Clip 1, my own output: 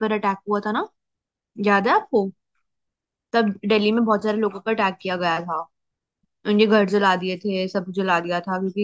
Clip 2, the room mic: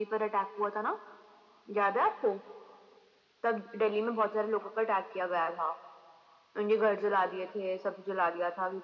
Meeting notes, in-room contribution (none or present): none